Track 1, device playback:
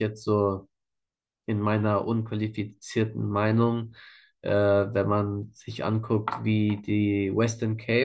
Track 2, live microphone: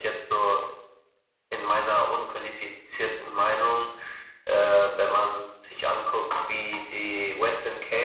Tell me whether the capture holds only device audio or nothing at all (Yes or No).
Yes